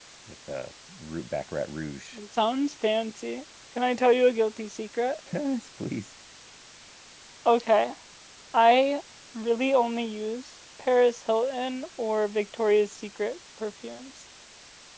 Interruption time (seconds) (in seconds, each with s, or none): none